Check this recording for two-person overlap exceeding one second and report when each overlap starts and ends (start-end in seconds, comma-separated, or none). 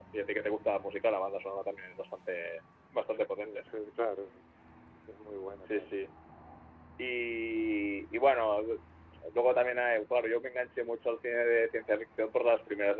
none